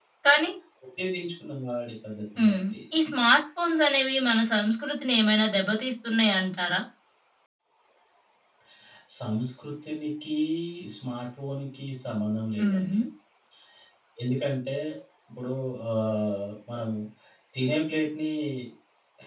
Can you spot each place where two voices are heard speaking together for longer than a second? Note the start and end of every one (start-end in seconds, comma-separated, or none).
none